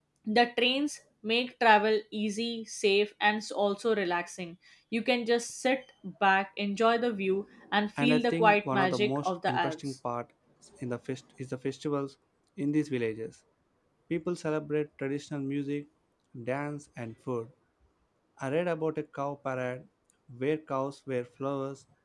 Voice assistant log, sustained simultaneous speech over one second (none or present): present